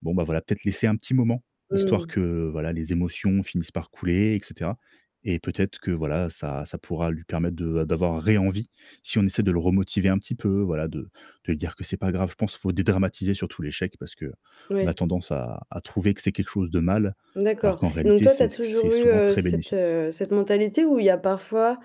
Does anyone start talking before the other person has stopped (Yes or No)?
Yes